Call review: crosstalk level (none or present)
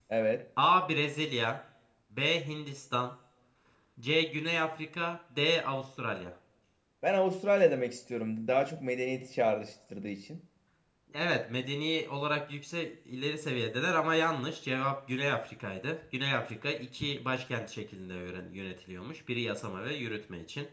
none